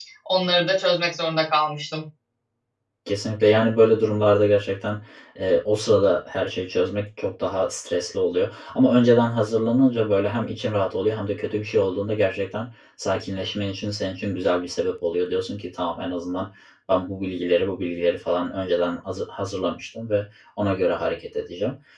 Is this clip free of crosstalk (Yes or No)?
Yes